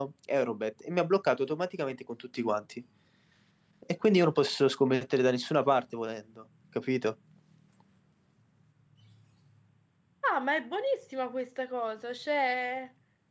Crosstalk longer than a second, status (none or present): none